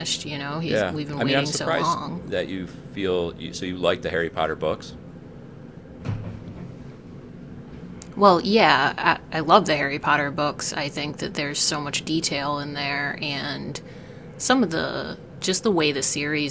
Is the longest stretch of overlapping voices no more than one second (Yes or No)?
No